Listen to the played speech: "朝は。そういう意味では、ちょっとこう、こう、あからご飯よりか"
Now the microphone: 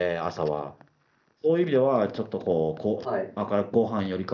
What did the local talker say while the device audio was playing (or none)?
はい。